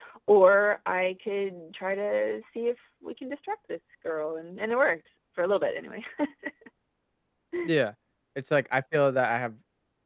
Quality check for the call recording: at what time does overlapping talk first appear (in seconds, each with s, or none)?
none